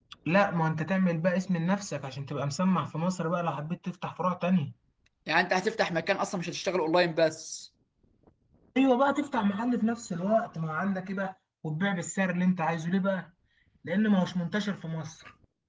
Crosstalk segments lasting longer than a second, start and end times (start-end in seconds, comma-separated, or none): none